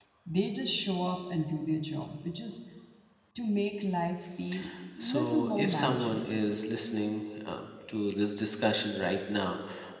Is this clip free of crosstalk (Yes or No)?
No